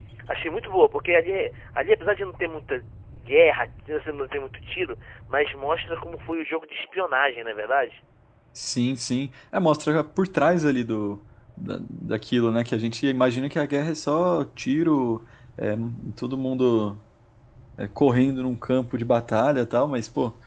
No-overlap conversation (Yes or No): Yes